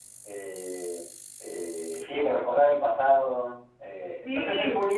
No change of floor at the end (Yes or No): Yes